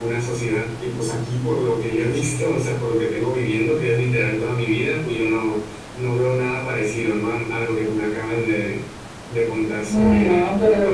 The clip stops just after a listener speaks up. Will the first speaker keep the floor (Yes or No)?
No